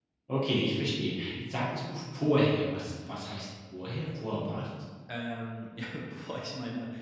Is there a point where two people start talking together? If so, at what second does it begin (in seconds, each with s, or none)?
none